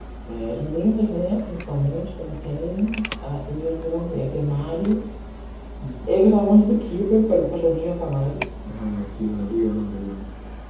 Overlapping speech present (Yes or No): No